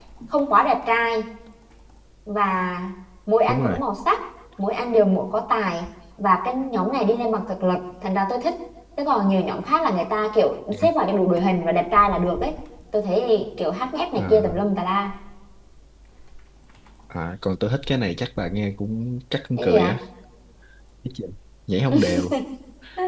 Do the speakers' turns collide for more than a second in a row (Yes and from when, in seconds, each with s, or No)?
No